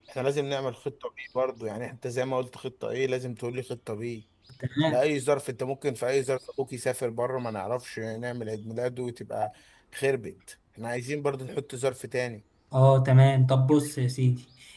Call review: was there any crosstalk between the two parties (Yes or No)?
No